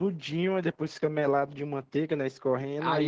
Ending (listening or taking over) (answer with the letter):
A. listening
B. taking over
B